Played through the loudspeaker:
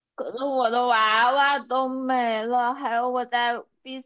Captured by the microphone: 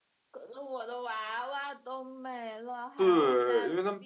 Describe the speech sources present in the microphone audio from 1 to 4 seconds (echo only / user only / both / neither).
both